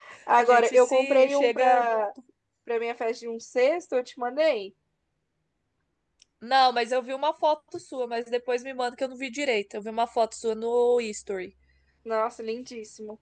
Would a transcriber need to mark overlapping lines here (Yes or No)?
Yes